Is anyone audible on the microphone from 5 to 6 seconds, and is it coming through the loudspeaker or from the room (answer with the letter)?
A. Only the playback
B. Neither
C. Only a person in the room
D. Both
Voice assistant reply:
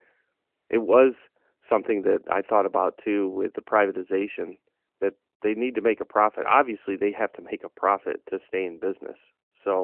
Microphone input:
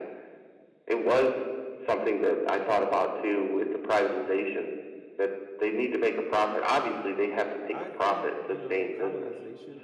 A